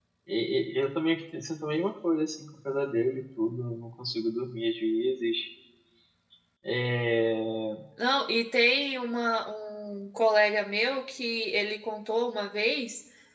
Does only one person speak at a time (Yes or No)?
Yes